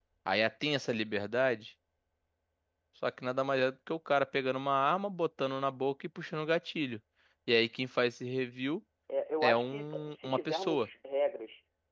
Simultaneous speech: Yes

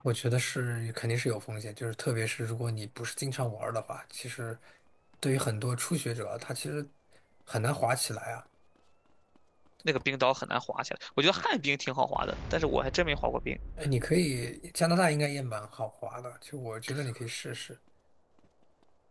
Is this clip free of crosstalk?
Yes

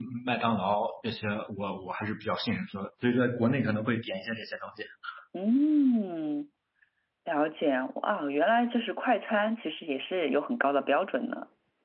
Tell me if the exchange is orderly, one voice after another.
Yes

